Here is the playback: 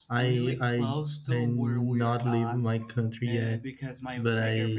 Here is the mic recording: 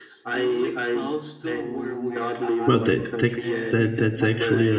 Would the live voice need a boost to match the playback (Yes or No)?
No